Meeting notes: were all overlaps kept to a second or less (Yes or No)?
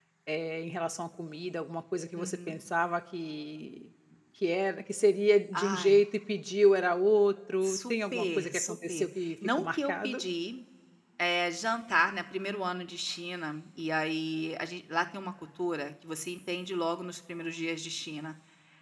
No